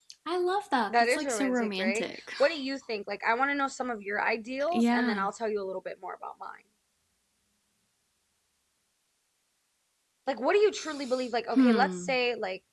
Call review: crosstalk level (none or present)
present